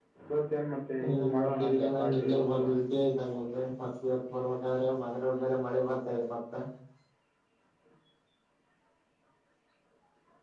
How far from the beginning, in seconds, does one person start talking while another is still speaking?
1.3 s

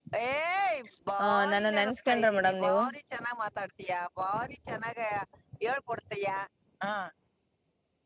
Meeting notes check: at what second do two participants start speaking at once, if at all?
1.2 s

